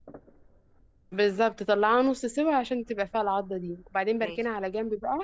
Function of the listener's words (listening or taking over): listening